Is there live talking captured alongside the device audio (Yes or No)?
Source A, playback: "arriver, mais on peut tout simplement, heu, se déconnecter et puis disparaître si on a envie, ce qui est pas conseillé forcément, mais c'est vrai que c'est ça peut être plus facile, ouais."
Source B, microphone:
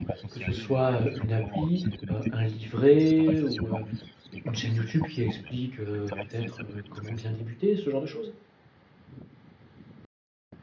Yes